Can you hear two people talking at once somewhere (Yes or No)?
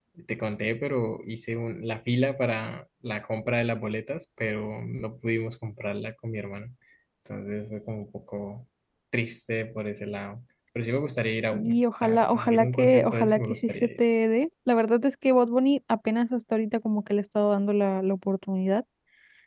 Yes